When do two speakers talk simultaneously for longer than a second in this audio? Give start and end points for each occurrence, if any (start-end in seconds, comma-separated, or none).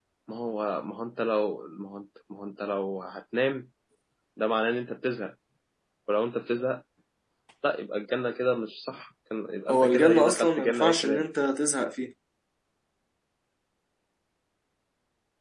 9.7-11.2